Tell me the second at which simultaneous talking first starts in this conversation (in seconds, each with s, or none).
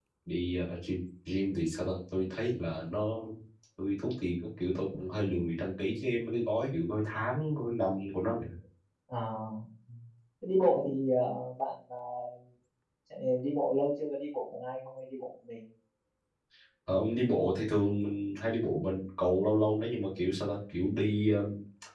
none